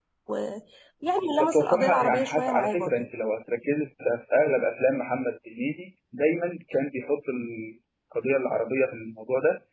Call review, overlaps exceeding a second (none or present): present